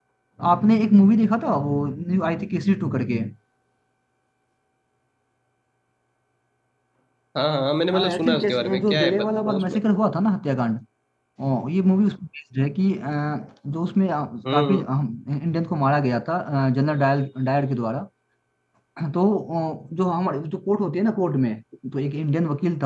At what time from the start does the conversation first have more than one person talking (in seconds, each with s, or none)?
8.1 s